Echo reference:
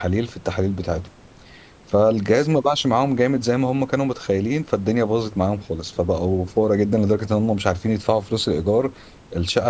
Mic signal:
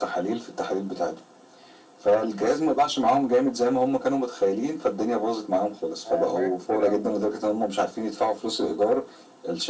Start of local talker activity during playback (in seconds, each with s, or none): 6.0 s